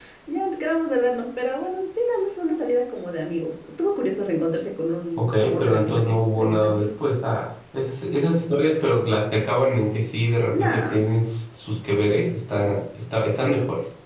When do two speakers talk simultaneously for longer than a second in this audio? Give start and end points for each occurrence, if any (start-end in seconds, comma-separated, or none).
5.2-6.9